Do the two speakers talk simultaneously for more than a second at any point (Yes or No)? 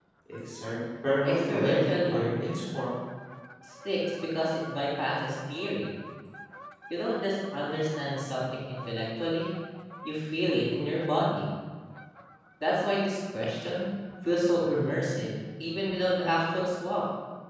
Yes